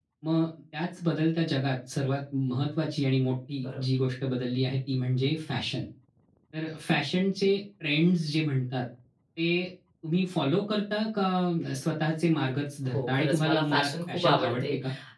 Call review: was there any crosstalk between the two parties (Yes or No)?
Yes